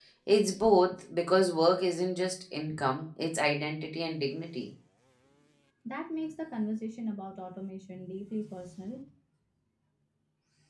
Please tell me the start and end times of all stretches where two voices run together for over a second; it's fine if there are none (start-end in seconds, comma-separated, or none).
none